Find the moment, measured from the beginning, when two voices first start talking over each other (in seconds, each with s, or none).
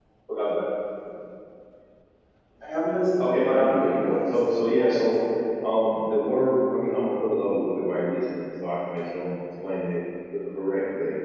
3.3 s